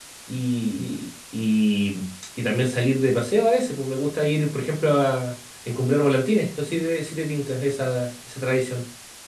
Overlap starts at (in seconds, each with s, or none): none